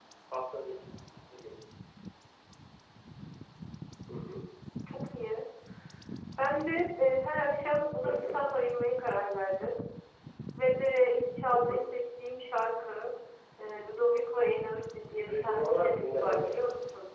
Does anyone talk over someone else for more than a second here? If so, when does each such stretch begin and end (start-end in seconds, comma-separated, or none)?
15.3-16.5